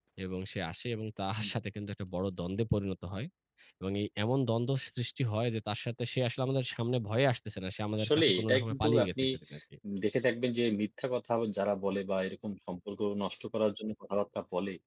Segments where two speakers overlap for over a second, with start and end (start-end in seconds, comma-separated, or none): 8.0-9.2